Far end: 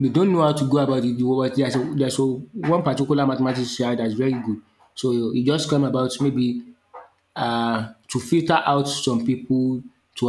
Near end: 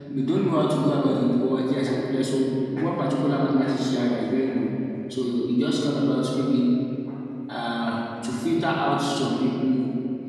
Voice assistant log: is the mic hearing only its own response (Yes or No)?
Yes